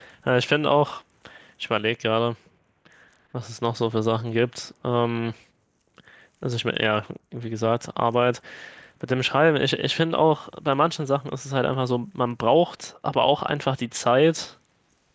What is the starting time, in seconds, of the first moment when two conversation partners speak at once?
none

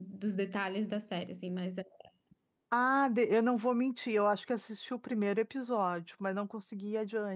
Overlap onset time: none

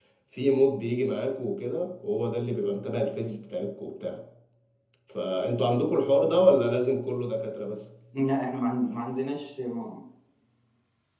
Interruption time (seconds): none

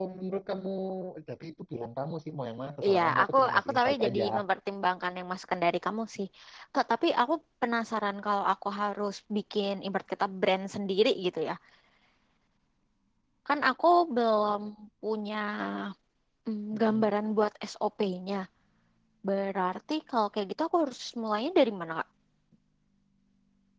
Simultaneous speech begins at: 2.9 s

